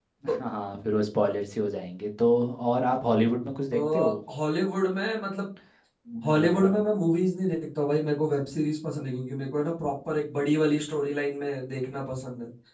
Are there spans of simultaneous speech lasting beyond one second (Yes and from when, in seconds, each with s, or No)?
No